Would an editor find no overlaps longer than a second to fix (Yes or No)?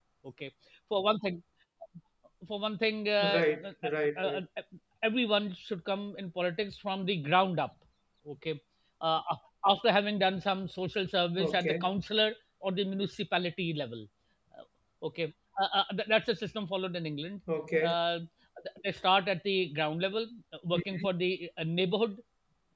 Yes